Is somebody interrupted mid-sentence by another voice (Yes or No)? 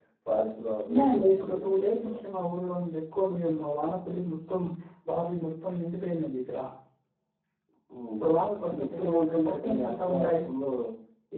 Yes